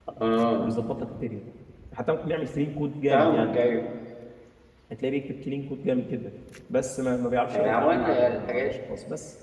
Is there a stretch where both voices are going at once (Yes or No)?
Yes